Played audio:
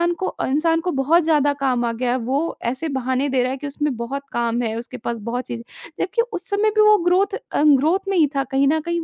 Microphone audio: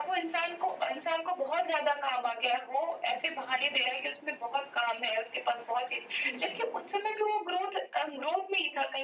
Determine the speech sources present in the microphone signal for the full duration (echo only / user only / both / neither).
both